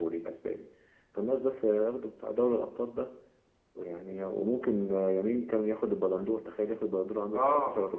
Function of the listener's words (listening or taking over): taking over